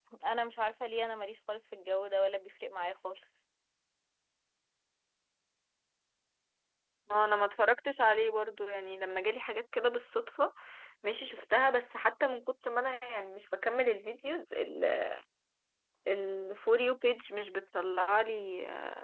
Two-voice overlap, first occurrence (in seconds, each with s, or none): none